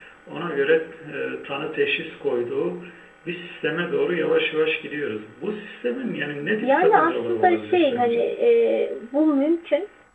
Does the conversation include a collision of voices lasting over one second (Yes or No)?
Yes